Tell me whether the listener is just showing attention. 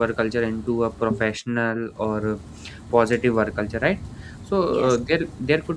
Yes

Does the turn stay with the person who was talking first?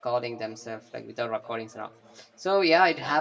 Yes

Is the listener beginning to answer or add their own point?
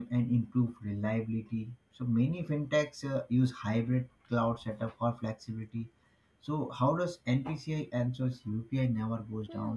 Yes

